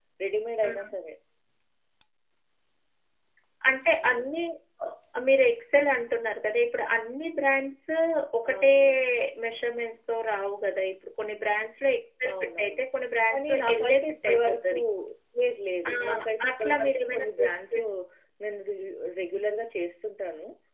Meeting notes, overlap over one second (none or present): present